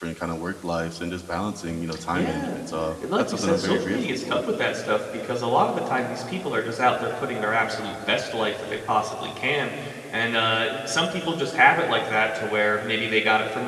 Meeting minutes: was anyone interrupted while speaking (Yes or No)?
Yes